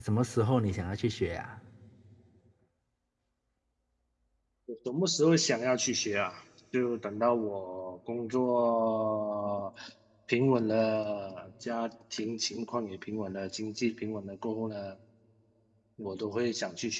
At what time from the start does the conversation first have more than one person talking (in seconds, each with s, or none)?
none